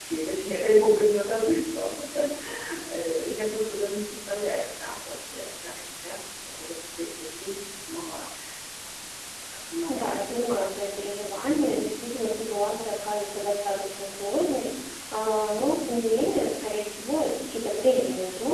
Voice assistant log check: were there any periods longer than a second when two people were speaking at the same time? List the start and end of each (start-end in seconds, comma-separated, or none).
9.9-11.1